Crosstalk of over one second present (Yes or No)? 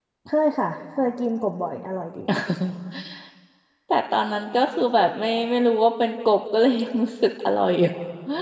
No